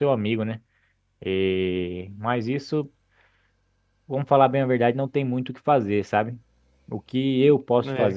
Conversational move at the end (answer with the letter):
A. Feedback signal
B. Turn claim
A